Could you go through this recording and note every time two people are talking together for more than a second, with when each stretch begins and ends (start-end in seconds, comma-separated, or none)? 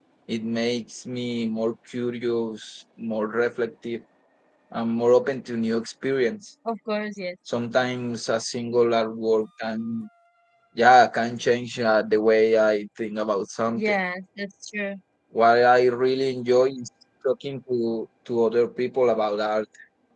none